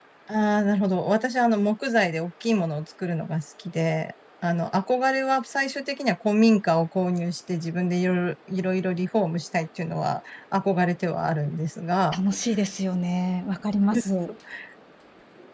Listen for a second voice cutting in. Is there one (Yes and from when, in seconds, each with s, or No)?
No